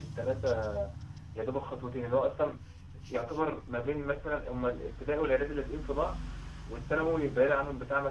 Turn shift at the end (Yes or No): No